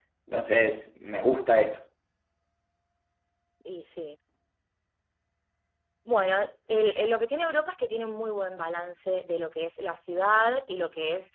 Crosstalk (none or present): none